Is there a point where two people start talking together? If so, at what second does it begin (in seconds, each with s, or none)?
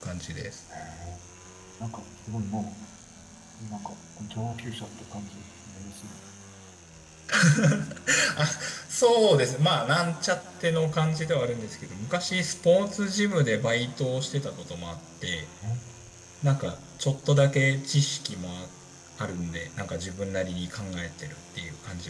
none